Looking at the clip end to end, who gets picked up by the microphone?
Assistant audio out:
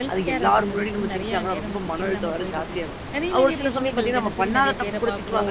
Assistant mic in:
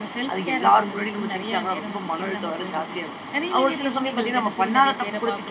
echo only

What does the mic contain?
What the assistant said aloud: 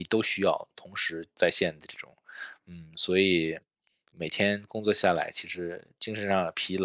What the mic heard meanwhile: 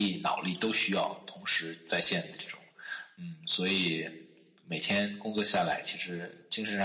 echo only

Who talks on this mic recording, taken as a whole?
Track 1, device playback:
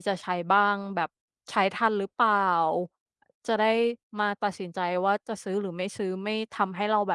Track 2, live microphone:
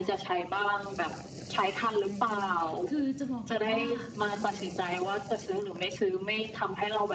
both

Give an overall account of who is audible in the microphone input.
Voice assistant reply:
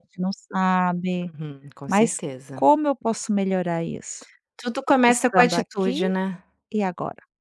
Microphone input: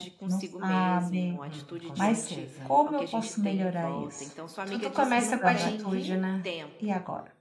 both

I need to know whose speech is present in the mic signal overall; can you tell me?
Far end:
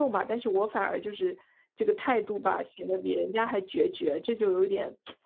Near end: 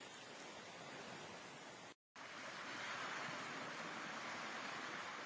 neither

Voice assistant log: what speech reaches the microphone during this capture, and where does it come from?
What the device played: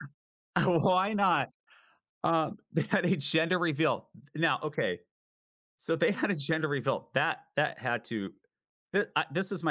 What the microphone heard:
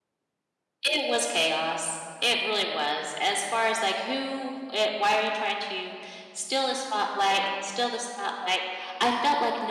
user only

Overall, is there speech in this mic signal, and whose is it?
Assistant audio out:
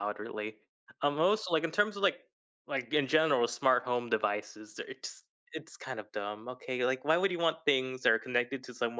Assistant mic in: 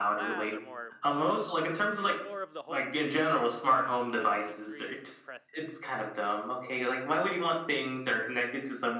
both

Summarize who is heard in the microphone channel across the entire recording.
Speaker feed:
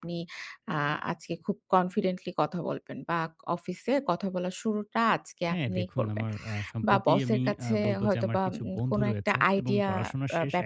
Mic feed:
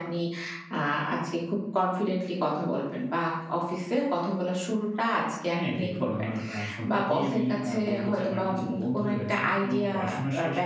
echo only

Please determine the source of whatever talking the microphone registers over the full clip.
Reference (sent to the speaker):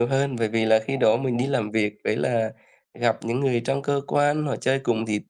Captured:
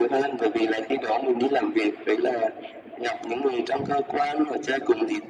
echo only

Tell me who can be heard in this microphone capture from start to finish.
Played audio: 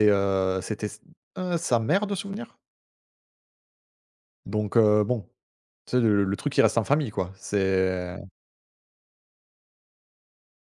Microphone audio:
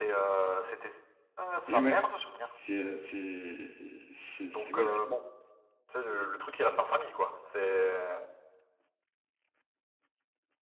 both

